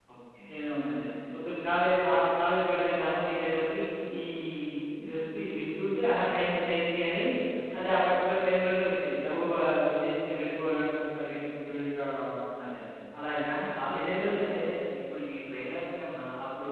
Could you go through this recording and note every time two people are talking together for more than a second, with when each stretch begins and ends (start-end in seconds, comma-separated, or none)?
none